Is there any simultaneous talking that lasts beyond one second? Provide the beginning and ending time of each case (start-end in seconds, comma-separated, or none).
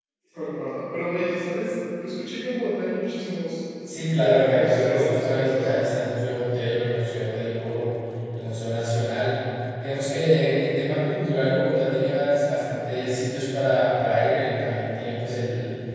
4.2-5.9